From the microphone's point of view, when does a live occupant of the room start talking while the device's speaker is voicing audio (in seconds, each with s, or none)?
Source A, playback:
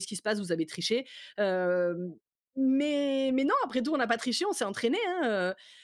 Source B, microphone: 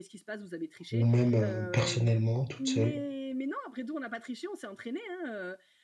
0.9 s